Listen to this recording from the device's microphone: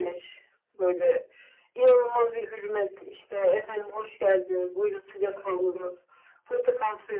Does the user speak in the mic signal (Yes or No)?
No